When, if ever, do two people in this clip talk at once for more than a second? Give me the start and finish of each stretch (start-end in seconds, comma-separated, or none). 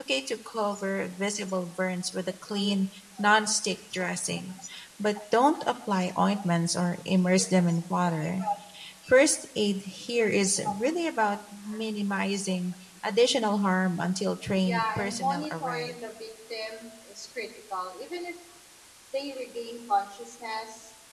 14.6-16.0